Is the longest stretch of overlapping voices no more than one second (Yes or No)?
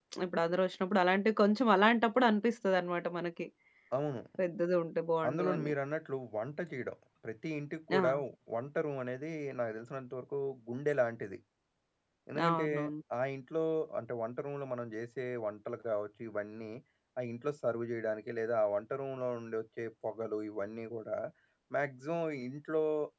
Yes